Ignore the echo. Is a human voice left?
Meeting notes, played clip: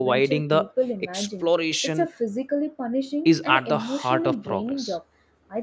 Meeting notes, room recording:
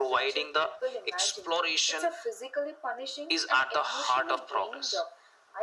No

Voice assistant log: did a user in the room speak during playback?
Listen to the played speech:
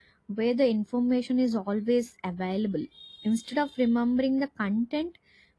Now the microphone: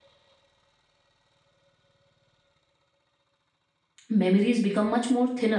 Yes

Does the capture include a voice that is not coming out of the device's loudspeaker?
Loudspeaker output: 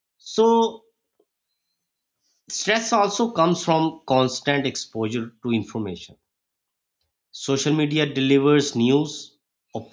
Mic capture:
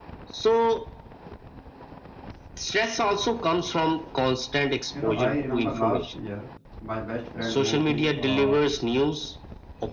Yes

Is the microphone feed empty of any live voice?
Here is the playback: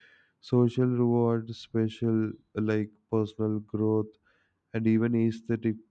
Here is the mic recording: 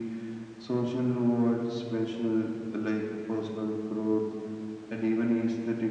Yes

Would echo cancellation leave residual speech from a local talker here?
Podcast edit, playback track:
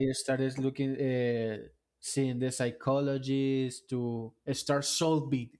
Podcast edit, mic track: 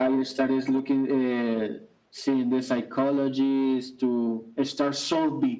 No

